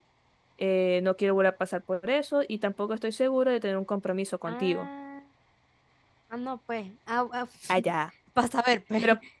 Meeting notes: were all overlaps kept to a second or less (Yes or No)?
Yes